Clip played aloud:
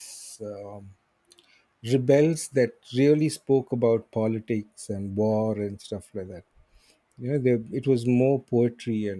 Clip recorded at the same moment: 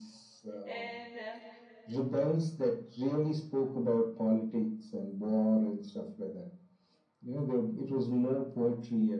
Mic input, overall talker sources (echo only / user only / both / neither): both